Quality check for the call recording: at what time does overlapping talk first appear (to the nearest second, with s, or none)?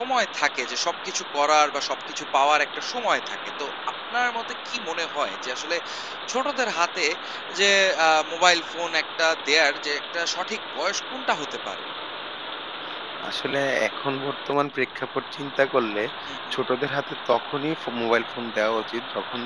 none